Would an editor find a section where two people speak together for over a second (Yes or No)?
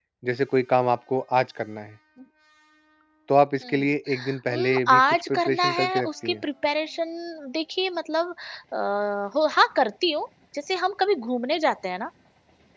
Yes